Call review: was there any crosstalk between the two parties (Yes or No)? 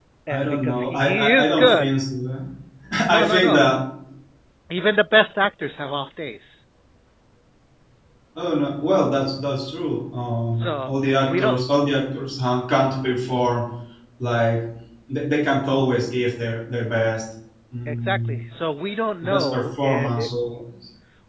Yes